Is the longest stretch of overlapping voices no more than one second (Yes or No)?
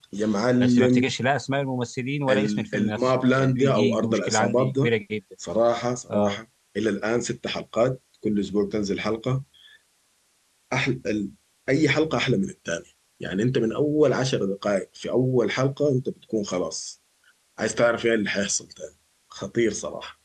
No